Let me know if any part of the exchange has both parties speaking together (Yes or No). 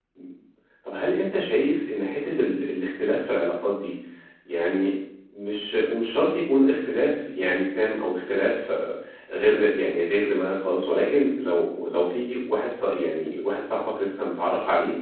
No